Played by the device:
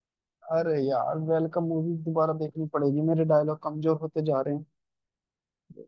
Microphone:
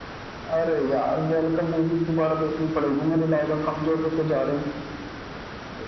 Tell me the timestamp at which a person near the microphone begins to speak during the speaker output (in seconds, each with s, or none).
none